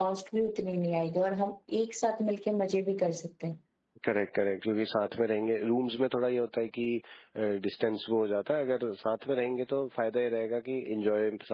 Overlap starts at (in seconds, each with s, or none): none